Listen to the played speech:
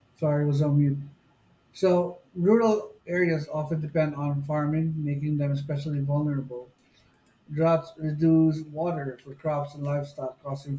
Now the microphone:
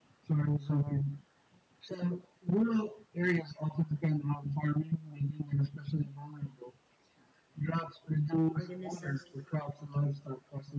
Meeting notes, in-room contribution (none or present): present